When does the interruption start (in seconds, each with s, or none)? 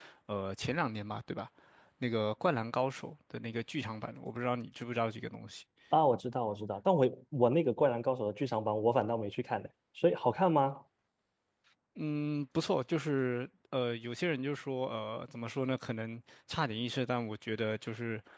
none